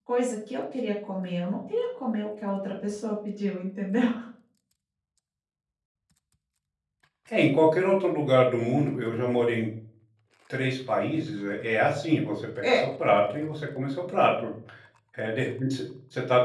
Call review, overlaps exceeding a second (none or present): none